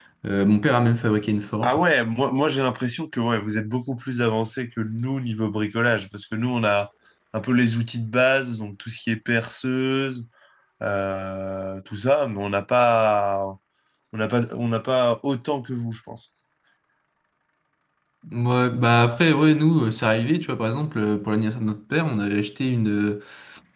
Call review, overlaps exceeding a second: none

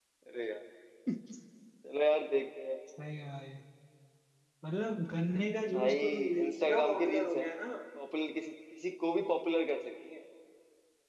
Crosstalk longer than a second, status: present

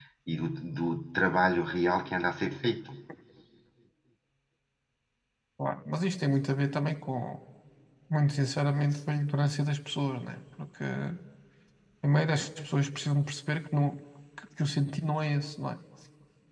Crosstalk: none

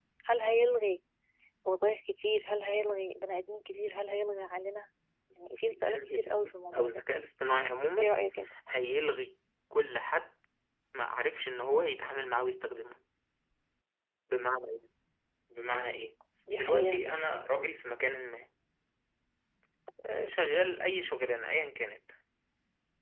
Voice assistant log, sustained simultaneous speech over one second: present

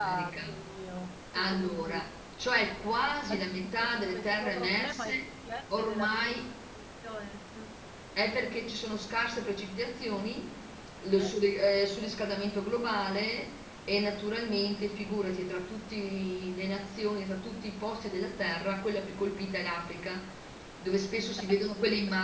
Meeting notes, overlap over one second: present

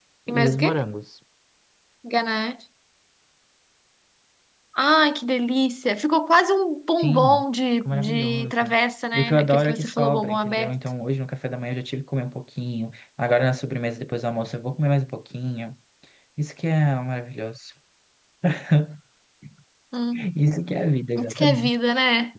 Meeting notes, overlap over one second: present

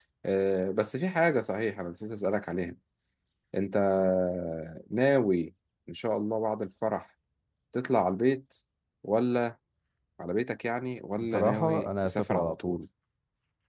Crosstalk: present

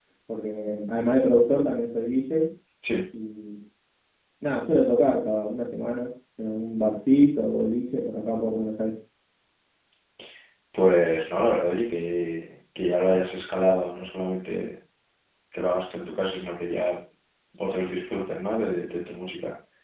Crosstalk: none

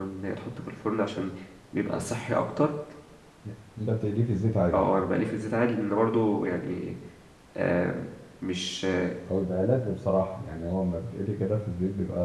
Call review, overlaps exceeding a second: none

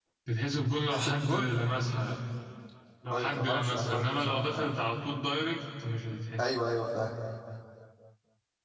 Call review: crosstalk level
present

